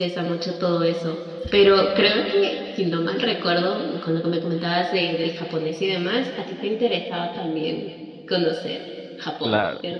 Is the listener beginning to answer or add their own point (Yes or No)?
Yes